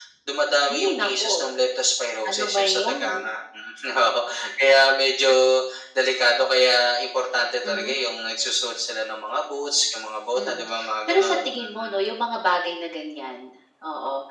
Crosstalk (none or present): present